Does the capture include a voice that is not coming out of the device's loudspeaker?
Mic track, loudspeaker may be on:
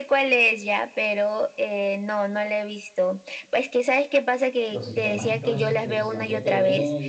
Yes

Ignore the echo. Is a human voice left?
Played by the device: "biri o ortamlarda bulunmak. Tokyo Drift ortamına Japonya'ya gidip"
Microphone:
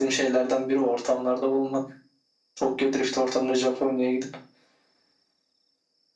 No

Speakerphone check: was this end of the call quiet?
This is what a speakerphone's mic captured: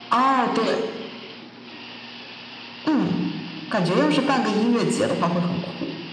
Yes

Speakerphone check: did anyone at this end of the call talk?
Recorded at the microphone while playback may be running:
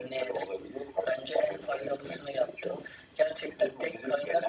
No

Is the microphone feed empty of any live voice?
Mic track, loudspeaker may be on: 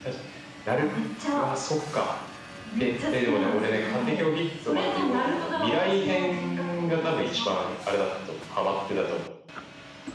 Yes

